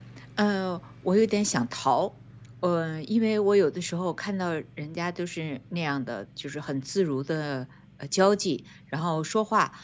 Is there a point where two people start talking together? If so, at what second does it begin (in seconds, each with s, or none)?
none